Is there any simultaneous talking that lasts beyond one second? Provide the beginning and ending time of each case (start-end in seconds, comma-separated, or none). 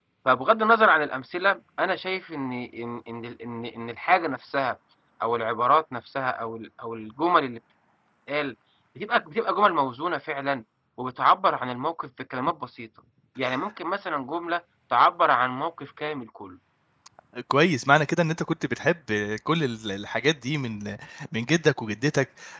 none